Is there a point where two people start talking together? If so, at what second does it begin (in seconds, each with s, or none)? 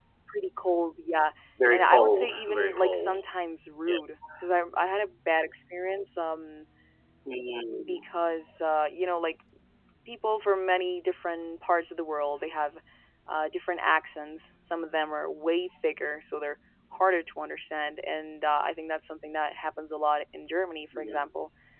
1.7 s